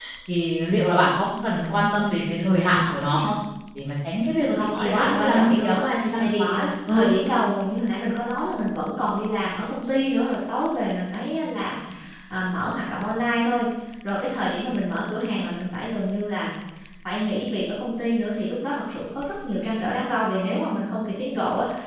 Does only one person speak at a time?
No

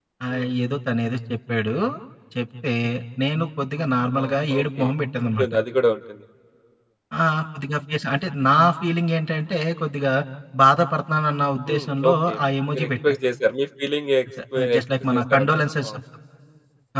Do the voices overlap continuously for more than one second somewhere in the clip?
Yes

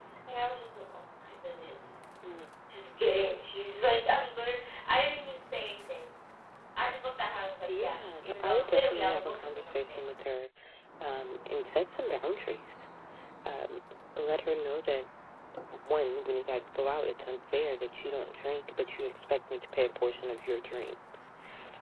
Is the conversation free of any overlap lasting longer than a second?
No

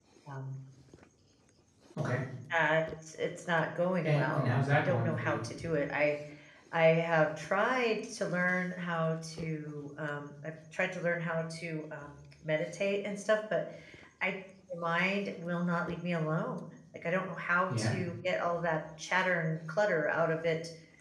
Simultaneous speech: Yes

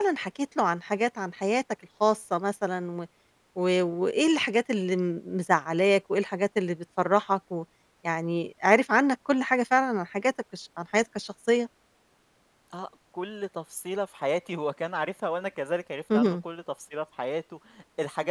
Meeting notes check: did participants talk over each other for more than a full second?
No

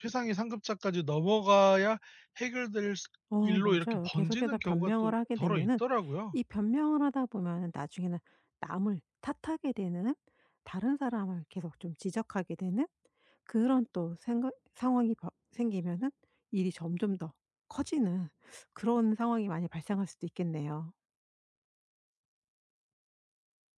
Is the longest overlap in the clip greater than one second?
Yes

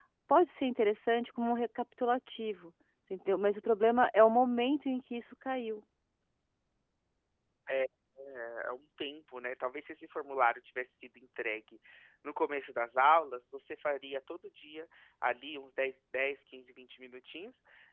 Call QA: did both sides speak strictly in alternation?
Yes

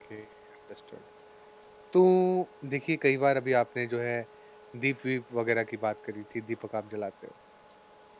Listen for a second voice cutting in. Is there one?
No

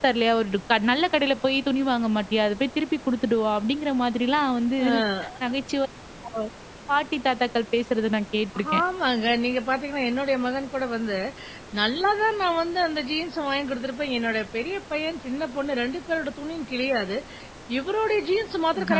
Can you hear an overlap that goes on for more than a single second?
No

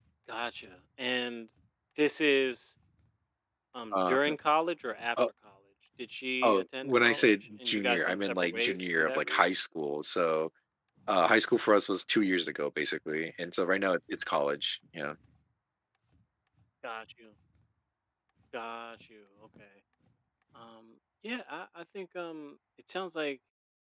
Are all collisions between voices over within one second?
No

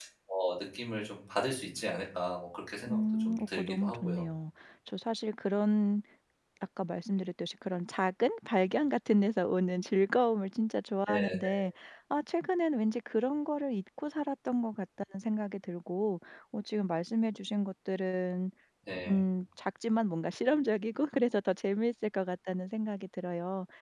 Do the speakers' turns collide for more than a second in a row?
Yes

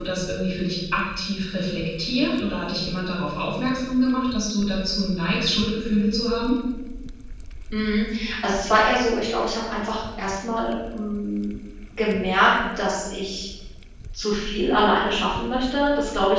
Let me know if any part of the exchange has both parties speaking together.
No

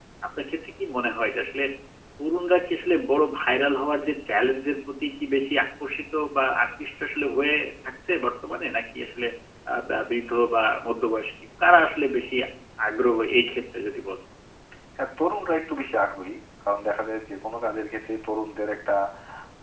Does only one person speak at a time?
Yes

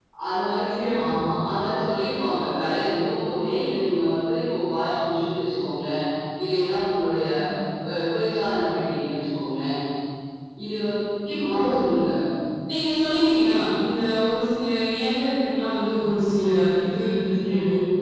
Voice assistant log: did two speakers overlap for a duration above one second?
No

